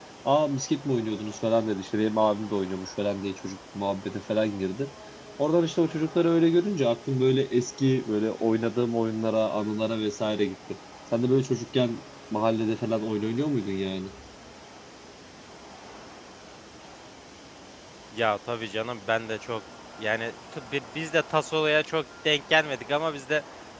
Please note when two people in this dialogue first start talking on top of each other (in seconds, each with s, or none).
none